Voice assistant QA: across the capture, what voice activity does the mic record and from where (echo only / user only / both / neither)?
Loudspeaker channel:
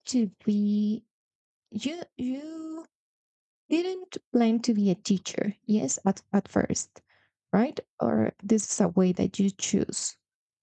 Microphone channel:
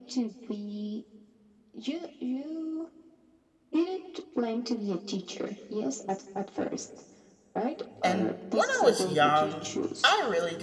both